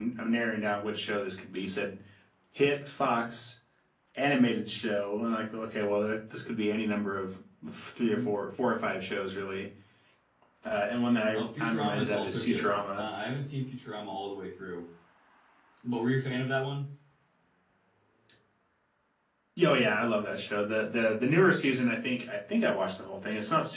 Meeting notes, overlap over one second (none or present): present